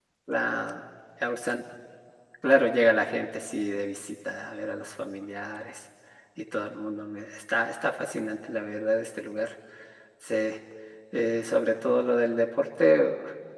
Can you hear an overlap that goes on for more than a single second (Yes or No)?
No